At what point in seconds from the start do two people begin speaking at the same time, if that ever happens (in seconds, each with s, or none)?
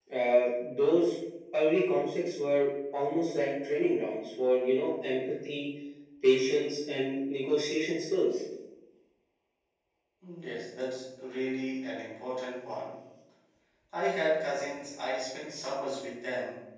none